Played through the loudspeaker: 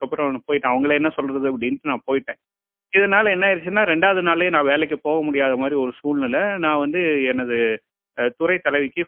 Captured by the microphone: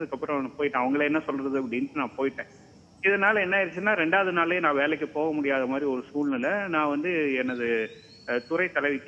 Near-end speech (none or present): none